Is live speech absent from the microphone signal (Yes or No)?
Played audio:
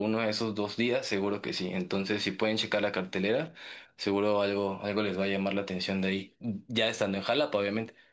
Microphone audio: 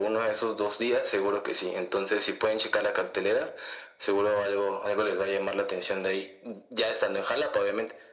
Yes